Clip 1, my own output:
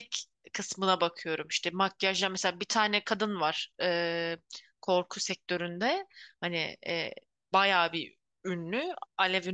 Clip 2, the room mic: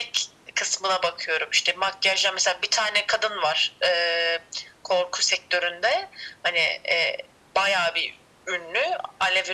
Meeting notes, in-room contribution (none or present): none